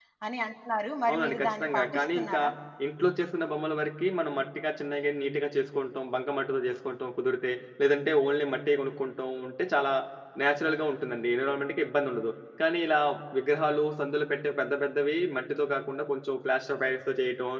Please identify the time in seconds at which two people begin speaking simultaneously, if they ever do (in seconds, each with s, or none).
1.1 s